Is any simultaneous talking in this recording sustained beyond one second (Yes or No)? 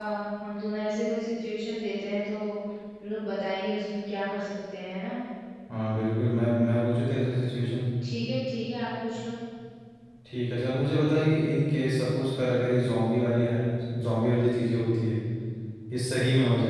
No